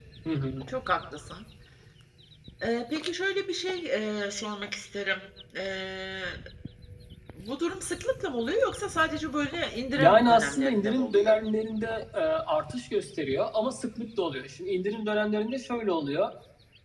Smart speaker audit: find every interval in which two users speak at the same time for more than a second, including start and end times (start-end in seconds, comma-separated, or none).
10.0-11.3